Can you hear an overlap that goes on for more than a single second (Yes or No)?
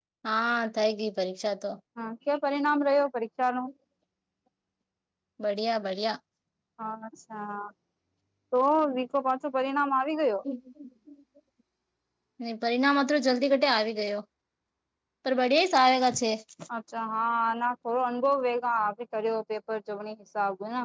No